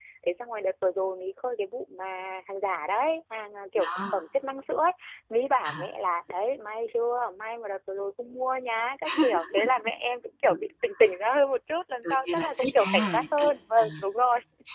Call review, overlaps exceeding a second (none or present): present